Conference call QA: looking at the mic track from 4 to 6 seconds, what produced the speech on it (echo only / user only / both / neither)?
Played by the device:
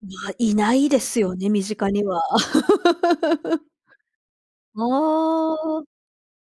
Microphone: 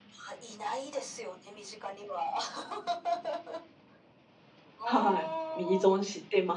both